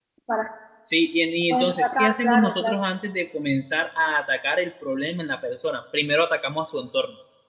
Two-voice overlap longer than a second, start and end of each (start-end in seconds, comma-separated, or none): 1.5-2.8